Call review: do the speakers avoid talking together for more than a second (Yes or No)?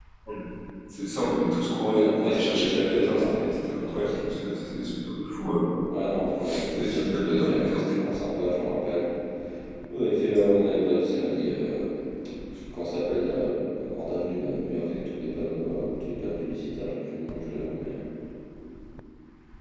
No